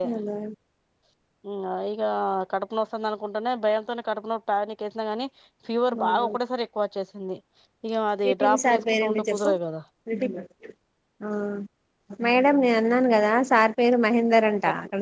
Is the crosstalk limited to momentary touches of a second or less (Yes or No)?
No